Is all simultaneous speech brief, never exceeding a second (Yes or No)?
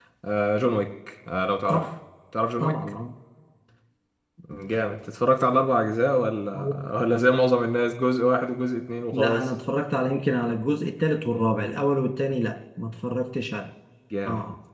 Yes